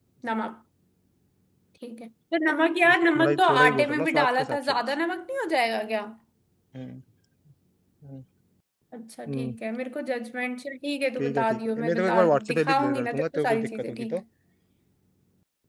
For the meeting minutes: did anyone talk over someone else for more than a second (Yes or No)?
Yes